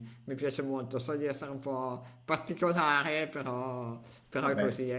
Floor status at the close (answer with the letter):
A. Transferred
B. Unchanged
B